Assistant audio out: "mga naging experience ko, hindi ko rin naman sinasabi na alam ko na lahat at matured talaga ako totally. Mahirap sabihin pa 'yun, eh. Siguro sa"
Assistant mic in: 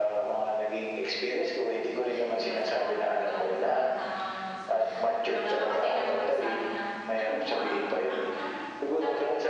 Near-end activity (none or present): present